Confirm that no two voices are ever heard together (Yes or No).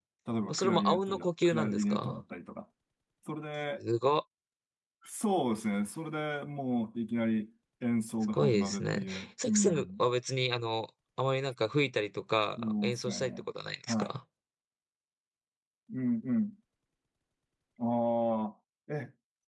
No